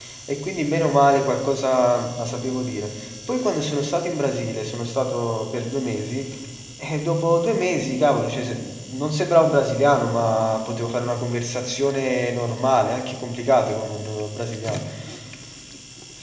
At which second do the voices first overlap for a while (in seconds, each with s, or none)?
none